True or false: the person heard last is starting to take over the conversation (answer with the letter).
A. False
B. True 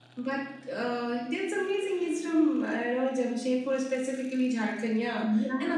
A